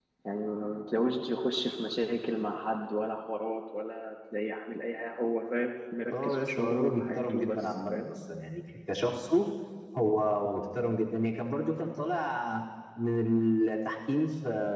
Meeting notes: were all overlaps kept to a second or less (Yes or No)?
No